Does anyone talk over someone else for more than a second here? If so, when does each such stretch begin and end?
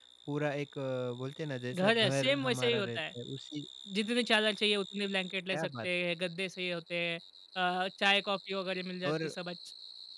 1.8-3.0

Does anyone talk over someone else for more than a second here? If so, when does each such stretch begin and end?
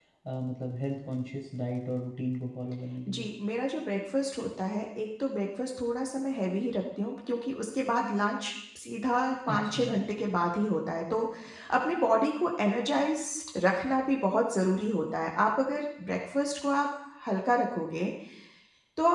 none

